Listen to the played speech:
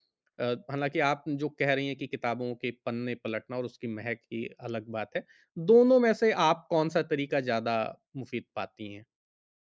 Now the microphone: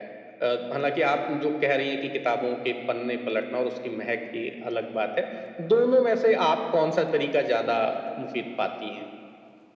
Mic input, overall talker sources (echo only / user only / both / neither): echo only